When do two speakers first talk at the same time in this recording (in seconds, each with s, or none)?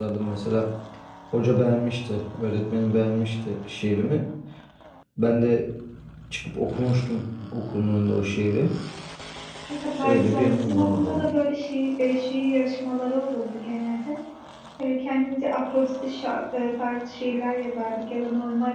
10.0 s